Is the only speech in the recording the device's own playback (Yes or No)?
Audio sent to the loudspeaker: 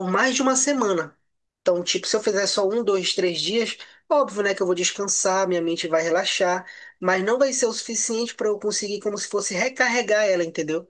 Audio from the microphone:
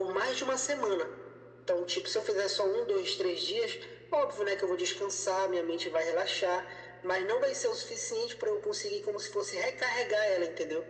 Yes